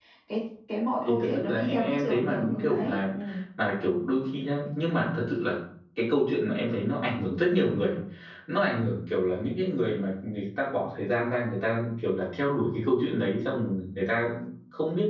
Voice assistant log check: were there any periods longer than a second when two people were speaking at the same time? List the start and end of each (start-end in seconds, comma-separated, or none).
1.0-3.0